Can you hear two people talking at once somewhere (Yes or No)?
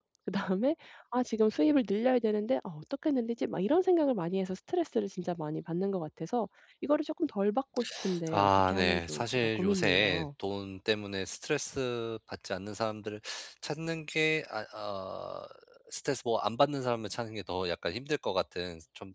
Yes